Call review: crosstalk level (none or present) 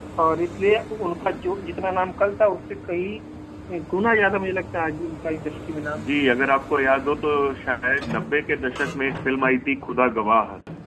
none